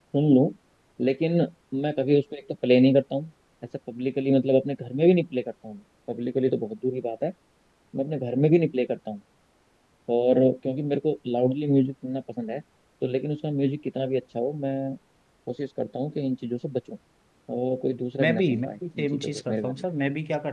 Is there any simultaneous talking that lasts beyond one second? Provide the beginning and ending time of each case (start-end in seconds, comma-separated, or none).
18.2-19.9